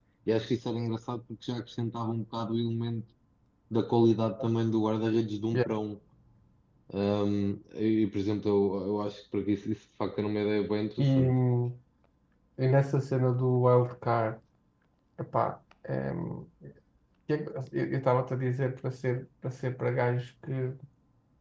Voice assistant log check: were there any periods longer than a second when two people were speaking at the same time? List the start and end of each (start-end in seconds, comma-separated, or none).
none